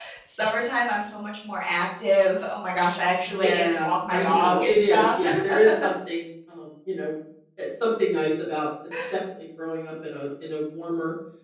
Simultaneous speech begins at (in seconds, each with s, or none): 3.2 s